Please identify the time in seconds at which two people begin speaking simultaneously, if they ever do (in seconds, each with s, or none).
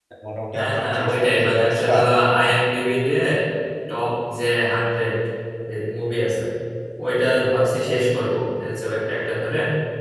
0.5 s